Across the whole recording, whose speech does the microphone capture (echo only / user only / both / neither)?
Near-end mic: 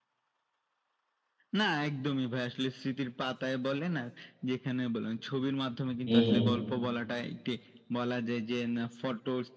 both